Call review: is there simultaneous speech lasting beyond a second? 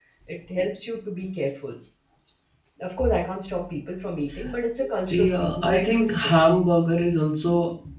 Yes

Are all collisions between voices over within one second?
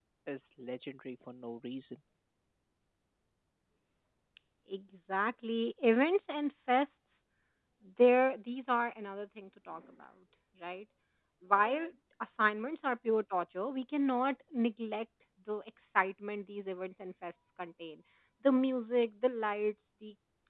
Yes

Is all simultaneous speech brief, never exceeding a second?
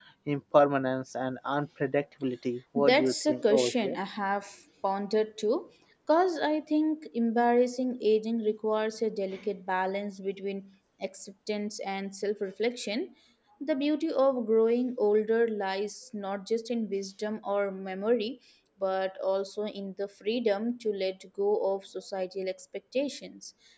No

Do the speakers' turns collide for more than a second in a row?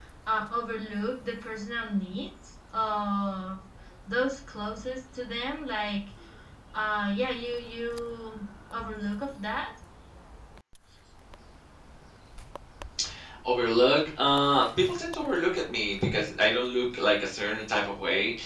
No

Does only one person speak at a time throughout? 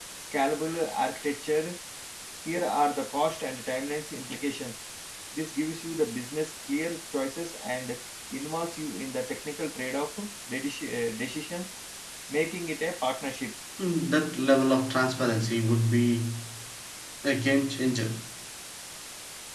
Yes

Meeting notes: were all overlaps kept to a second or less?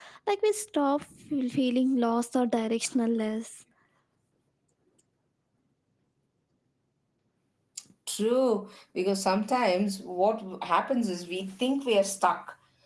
Yes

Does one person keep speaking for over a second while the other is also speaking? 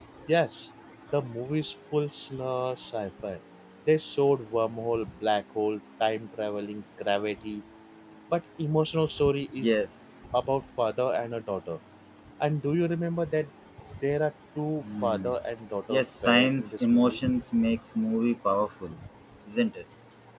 Yes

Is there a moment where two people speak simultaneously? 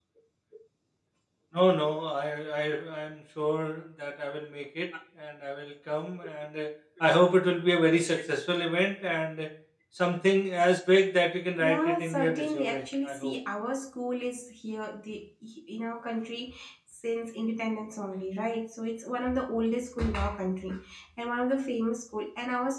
Yes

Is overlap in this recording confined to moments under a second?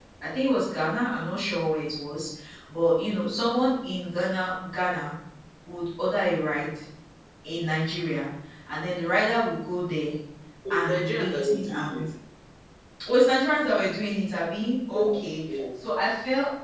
No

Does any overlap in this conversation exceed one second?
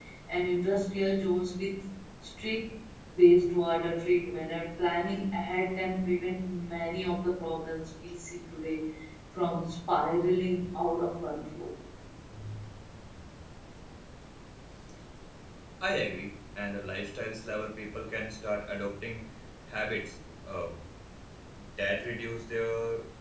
No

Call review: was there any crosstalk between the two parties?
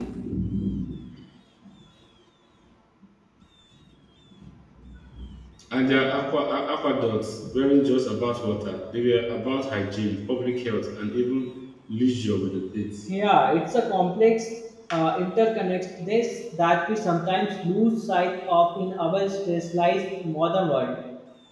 No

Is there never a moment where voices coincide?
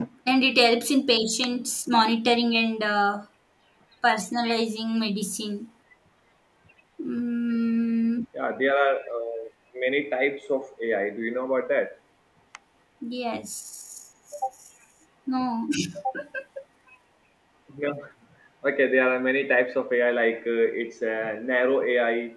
Yes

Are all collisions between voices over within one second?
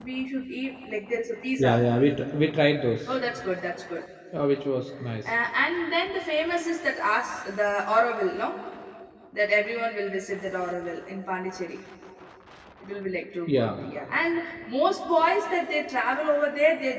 Yes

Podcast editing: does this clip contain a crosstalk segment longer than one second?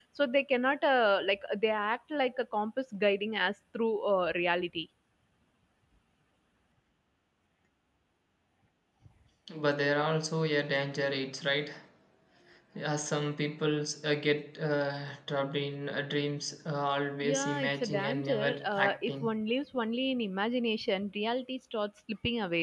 Yes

